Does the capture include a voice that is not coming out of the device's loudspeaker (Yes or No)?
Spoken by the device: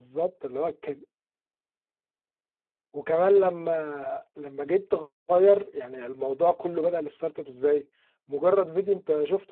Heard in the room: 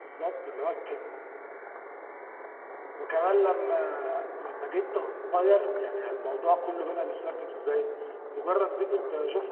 No